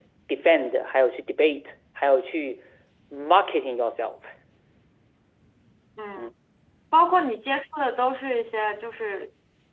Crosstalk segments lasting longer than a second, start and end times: none

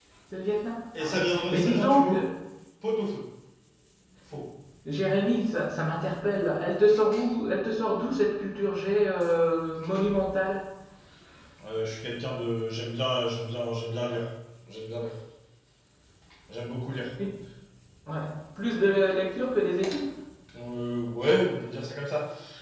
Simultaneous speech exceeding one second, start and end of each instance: 1.0-2.2

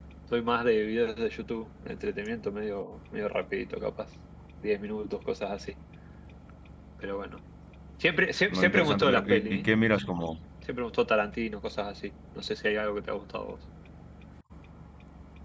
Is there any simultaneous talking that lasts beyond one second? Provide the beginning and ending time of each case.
8.5-9.7

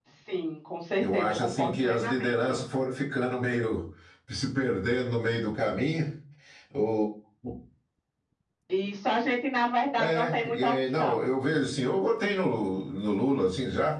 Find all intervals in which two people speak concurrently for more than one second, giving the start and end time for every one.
1.0-2.6, 10.0-11.2

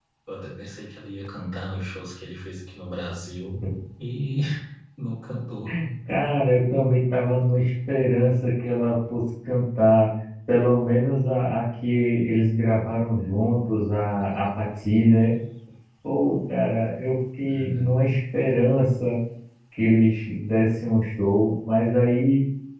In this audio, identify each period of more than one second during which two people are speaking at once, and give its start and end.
none

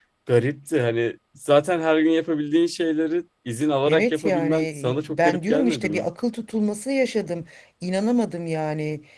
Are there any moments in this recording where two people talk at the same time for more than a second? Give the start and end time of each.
3.9-6.1

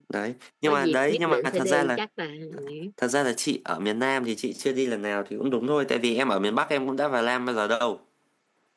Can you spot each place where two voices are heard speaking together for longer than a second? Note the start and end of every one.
0.7-2.0

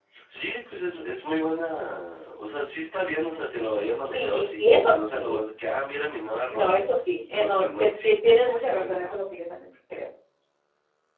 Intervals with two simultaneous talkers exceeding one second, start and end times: 4.0-5.4, 7.3-9.1

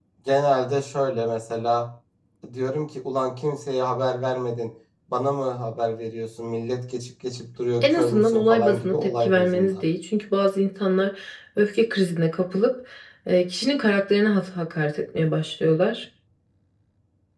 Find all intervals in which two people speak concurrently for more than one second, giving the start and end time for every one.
7.8-9.8

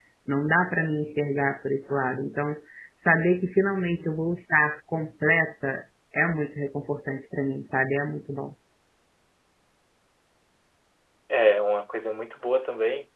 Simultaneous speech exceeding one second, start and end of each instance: none

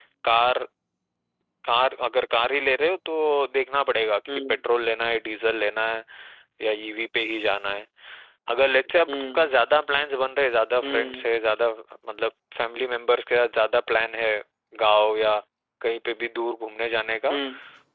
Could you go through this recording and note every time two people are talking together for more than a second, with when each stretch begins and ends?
none

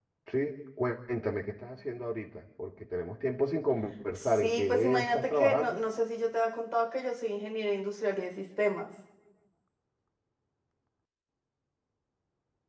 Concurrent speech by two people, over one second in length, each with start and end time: 4.2-5.8

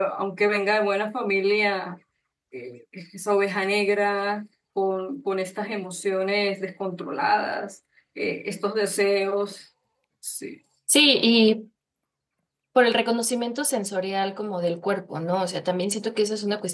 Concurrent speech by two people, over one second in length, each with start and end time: none

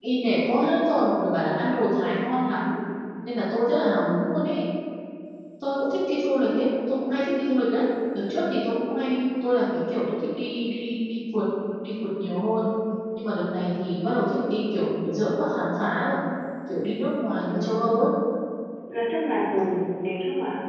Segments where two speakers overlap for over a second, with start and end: none

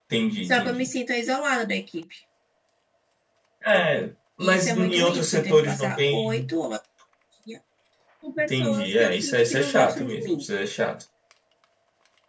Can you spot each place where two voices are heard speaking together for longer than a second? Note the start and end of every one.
4.4-6.5, 8.5-10.4

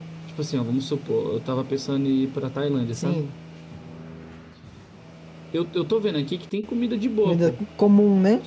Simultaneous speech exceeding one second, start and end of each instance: none

